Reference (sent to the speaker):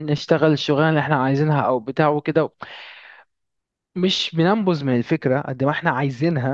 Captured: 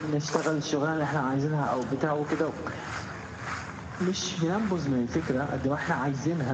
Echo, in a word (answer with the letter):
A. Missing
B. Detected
B